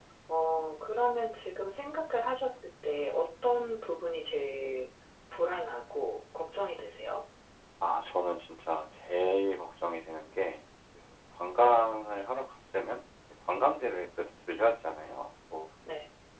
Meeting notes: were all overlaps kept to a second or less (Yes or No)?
Yes